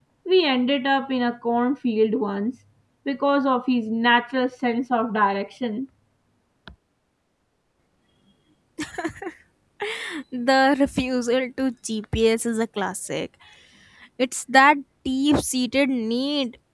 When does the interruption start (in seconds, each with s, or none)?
none